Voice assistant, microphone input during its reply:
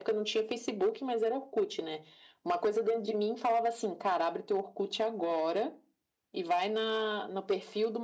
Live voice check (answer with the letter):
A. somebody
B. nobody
B